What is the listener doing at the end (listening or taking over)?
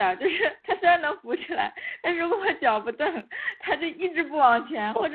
taking over